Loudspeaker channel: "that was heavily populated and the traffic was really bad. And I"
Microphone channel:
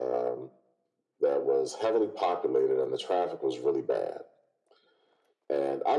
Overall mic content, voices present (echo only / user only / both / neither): echo only